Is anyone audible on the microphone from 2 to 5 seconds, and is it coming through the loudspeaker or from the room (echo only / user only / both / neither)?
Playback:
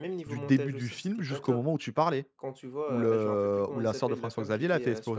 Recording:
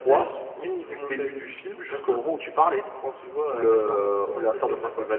echo only